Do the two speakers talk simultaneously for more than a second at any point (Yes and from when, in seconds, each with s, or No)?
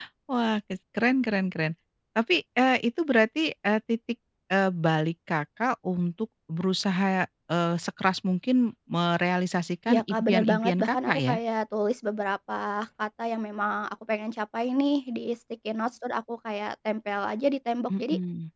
Yes, from 9.9 s